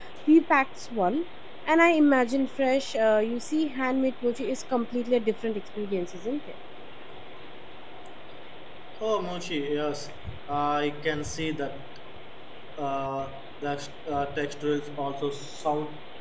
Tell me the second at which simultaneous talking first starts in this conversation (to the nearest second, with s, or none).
none